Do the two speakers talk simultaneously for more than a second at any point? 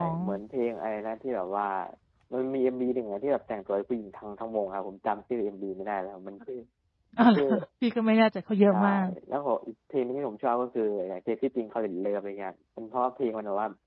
No

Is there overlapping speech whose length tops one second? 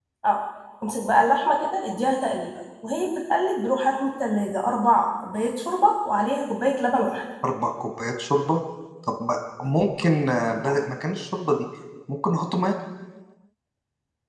No

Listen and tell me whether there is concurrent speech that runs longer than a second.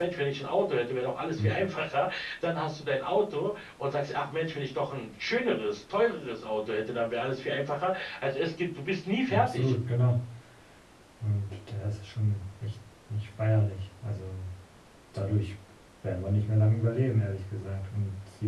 No

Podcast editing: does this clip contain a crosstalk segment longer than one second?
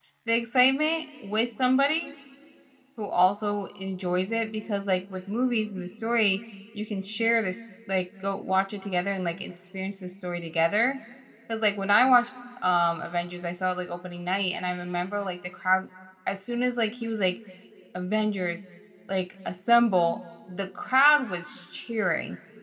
No

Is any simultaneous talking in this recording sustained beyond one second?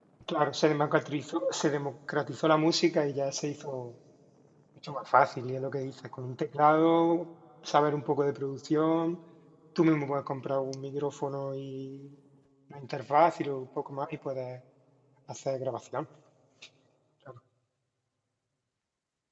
No

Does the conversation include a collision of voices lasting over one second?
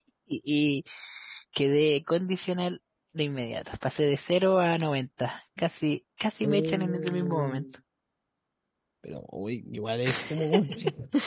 Yes, from 6.4 s

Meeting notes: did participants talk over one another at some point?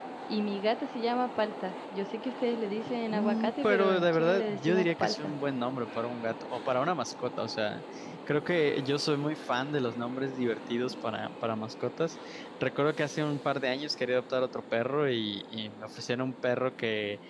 Yes, from 3.1 s

